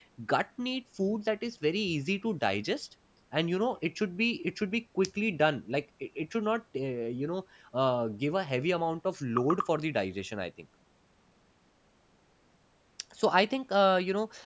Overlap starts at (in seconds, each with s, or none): none